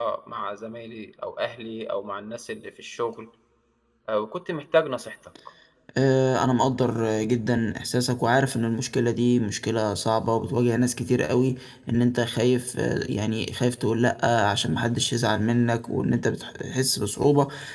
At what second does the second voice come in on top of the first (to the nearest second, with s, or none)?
none